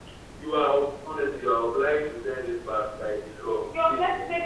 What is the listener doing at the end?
taking over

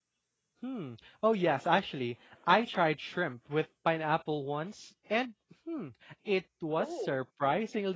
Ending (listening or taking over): listening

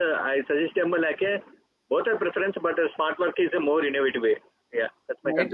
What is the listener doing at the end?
taking over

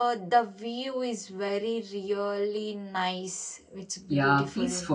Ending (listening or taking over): taking over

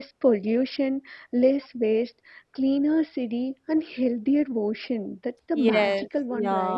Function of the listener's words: taking over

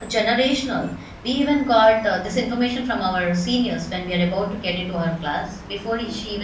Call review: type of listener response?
listening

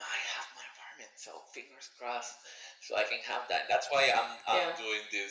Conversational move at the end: listening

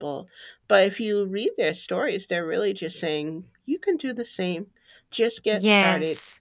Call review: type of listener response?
taking over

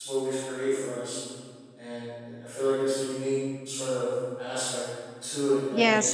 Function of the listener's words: taking over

